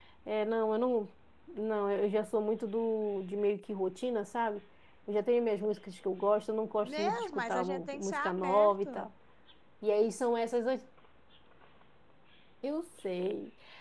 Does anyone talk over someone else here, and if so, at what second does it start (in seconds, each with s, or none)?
6.8 s